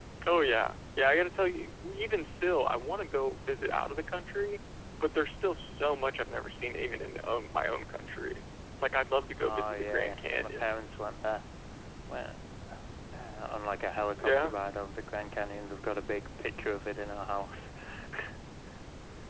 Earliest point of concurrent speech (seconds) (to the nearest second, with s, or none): 9 s